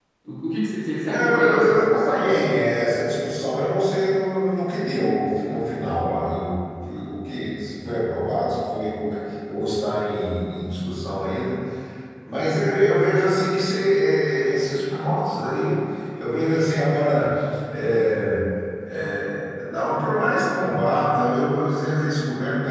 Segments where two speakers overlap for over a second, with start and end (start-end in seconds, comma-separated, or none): 1.1-2.3